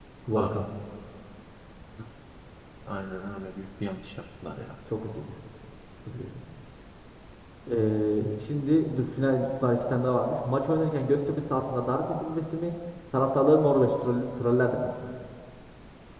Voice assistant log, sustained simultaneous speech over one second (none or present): none